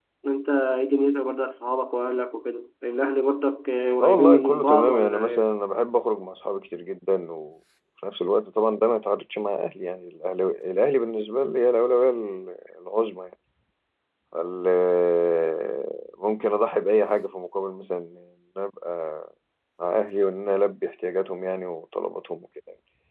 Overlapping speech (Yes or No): Yes